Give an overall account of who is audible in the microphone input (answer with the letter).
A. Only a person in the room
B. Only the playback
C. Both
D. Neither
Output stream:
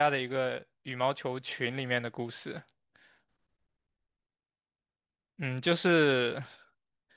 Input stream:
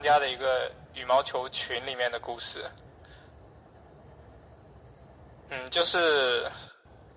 B